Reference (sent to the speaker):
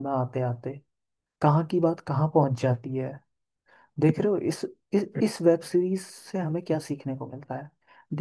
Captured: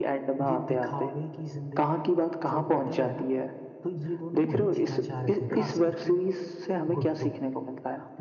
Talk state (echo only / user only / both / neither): both